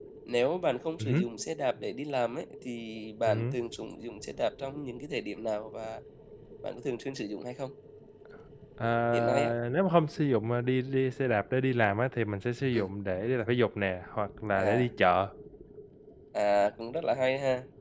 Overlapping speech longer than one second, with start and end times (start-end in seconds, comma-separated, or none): none